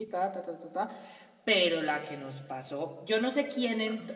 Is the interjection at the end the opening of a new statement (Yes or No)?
Yes